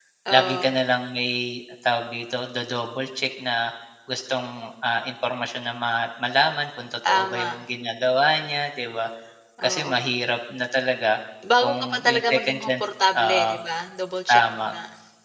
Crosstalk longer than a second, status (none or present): present